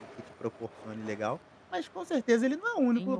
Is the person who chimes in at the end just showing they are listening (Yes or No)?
No